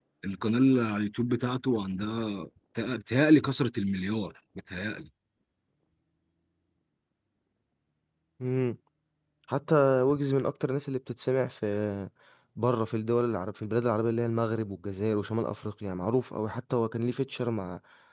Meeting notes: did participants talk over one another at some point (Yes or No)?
No